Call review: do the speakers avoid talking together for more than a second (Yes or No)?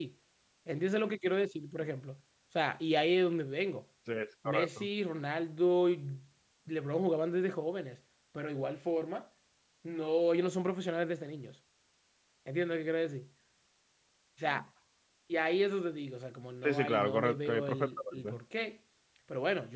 No